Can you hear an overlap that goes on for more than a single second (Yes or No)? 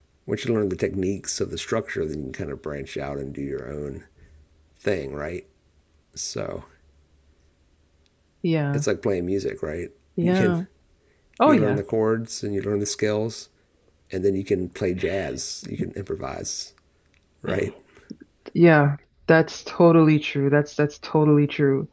No